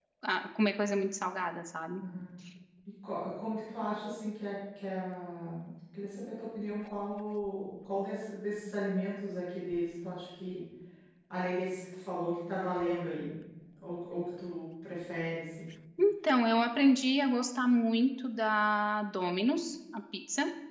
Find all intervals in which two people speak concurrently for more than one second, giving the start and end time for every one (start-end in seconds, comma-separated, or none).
none